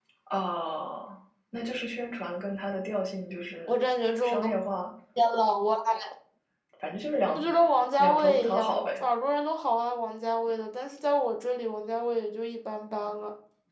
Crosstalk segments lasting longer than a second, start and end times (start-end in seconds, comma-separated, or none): 7.3-8.9